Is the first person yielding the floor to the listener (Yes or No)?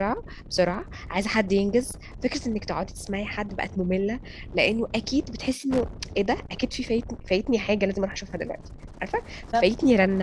No